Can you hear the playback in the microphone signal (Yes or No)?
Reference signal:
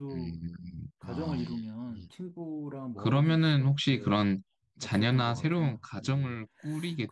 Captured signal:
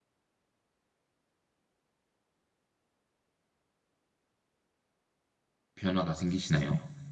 No